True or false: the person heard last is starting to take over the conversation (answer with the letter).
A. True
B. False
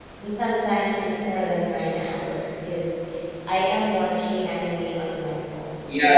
A